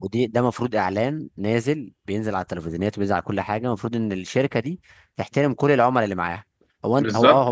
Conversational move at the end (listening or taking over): taking over